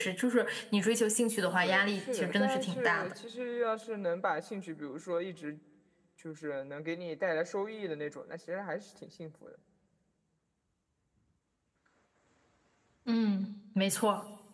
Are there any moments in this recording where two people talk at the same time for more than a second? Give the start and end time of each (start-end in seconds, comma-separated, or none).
1.6-3.1